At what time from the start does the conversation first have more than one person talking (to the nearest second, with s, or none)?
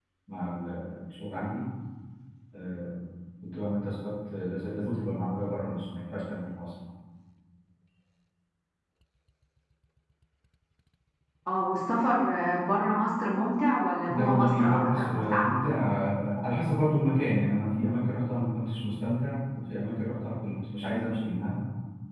14 s